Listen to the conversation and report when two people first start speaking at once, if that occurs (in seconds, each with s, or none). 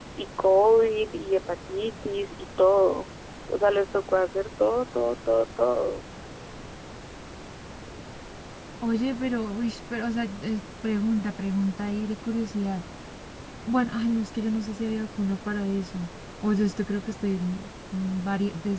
none